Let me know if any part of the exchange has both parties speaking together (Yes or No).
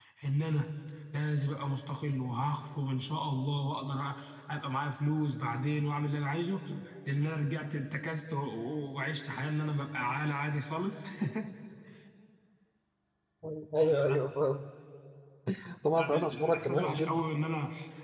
Yes